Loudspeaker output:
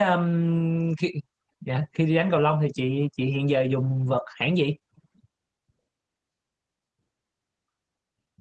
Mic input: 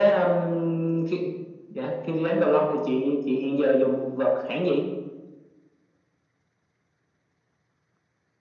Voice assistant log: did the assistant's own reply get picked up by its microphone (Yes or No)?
Yes